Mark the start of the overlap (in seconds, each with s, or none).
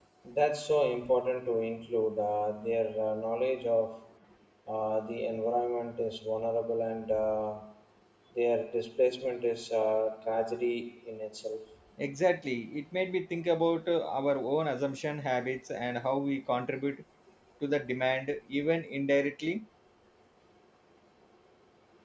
none